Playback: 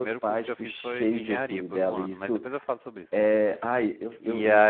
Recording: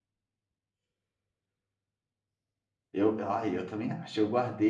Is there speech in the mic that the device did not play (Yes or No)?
Yes